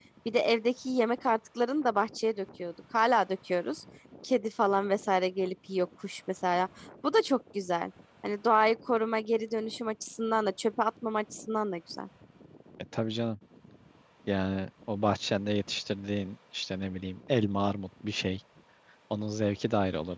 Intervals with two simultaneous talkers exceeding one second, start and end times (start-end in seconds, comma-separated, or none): none